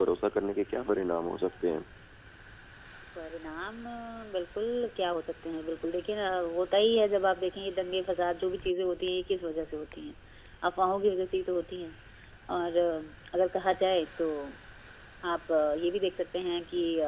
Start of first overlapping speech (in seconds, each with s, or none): none